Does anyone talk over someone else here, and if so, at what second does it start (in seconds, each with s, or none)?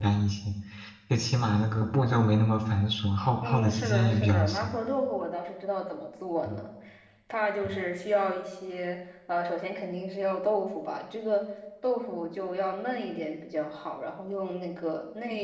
3.4 s